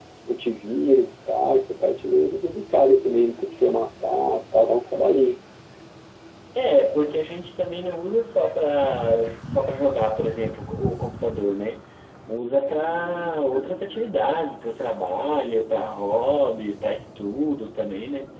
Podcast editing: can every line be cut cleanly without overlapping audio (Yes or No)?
Yes